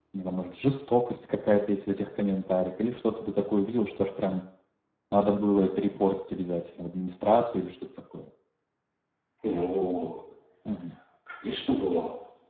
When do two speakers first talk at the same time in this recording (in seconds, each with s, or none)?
none